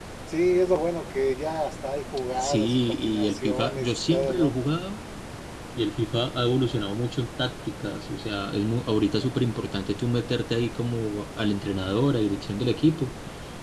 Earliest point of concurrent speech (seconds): 2.4 s

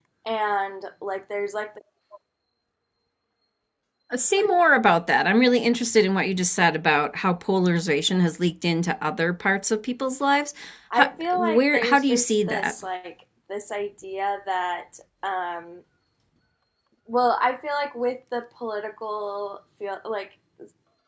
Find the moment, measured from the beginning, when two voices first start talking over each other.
10.9 s

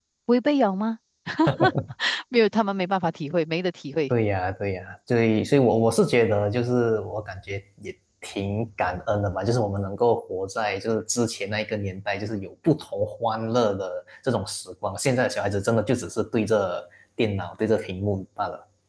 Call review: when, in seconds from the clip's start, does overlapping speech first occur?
none

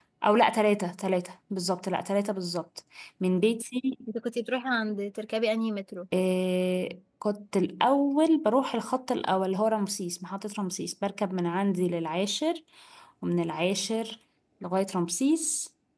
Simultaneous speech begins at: none

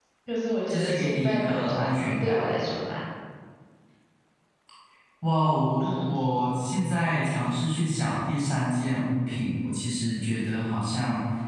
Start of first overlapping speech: 0.7 s

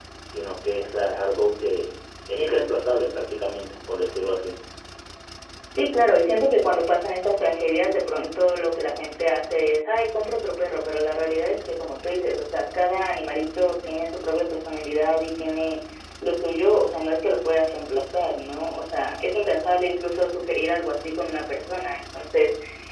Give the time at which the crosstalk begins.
none

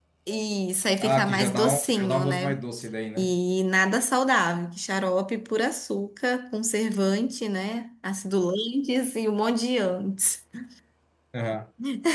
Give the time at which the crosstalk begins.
1.0 s

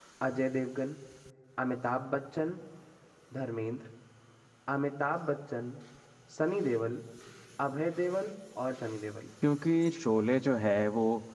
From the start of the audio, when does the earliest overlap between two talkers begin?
none

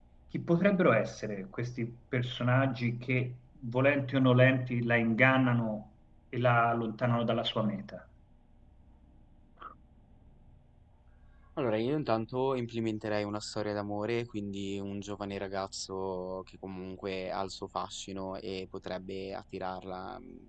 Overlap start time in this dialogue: none

